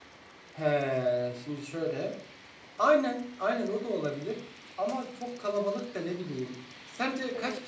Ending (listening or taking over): listening